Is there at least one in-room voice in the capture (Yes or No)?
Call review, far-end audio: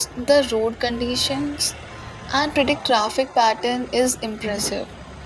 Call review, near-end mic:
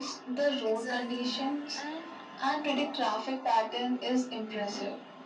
Yes